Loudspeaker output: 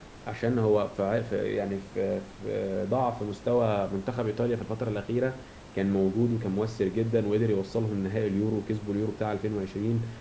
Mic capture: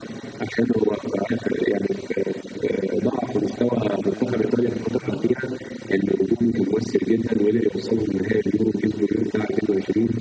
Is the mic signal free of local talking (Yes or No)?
No